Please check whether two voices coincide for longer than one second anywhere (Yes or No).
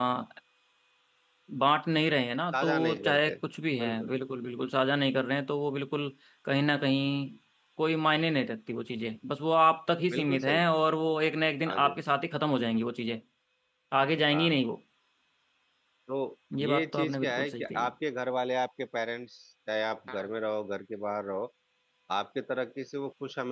Yes